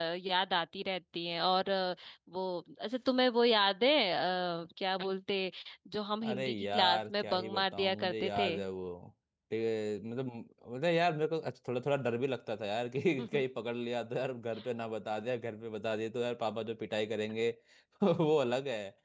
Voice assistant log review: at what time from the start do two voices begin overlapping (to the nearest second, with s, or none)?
6 s